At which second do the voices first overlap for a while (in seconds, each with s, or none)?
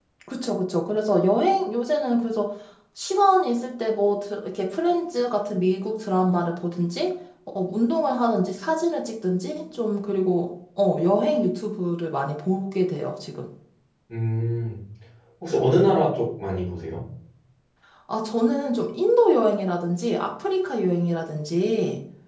none